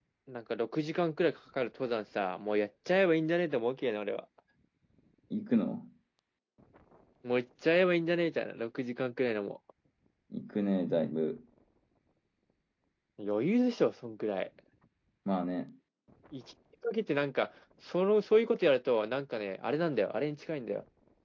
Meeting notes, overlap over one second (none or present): none